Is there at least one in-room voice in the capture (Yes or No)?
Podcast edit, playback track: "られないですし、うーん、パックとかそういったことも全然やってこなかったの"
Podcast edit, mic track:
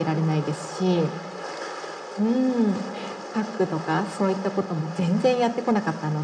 No